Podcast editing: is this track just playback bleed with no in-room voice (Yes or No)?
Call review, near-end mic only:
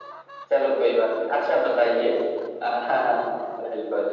Yes